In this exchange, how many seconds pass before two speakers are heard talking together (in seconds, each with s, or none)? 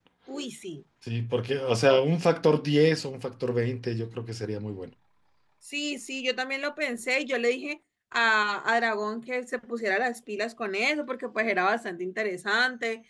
none